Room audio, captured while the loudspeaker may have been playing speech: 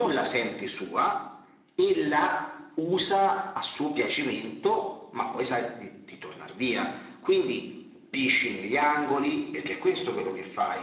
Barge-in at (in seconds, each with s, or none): none